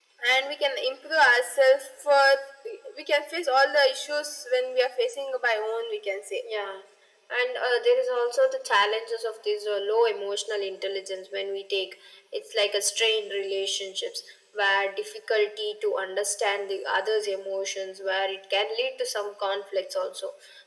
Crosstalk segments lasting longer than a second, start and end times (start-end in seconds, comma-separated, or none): none